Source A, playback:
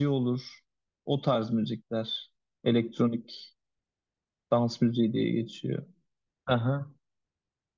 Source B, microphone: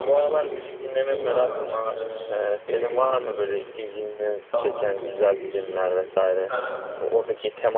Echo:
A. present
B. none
A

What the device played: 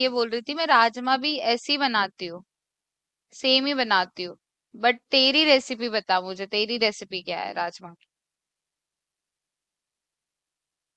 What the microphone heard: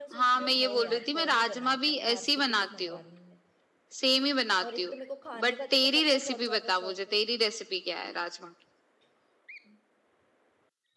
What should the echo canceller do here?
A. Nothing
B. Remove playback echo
B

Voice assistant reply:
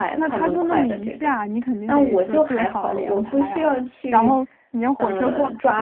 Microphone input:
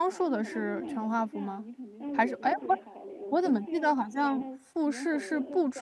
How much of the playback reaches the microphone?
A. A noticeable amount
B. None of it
A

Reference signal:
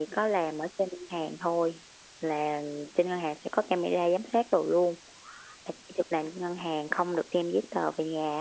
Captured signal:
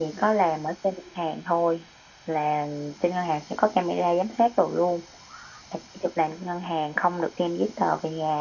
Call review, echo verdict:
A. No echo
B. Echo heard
B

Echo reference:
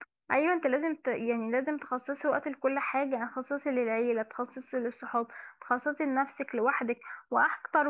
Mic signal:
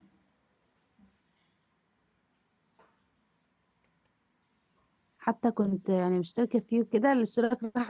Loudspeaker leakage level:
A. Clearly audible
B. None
B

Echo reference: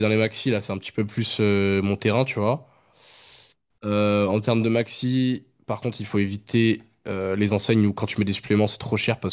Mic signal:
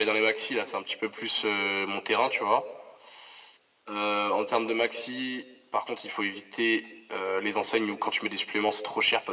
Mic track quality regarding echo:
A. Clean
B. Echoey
B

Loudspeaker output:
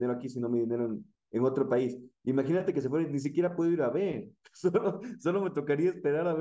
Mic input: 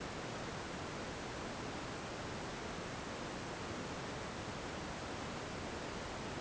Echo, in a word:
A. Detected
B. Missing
B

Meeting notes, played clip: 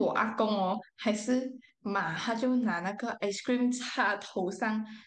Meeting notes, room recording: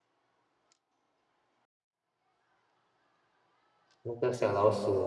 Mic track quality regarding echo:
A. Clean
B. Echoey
A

